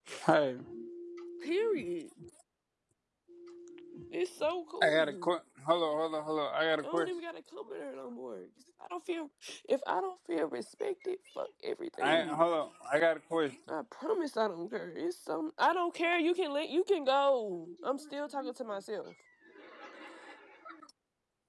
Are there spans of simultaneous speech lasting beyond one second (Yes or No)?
No